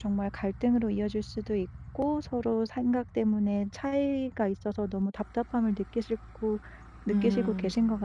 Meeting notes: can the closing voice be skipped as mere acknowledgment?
No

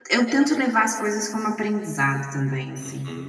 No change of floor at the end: No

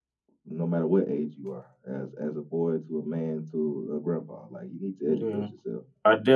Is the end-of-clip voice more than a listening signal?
Yes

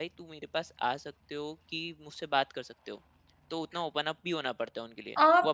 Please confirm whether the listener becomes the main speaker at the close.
Yes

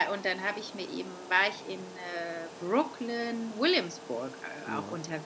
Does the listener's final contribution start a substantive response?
No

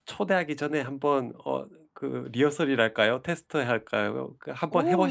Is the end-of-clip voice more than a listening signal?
Yes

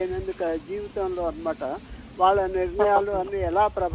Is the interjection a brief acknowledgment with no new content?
Yes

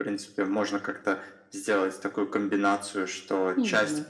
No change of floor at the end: Yes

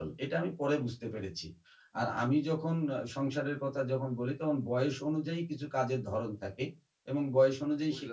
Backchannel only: Yes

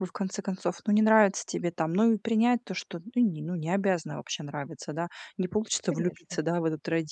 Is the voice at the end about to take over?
No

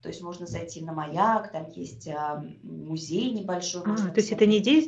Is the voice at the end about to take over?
Yes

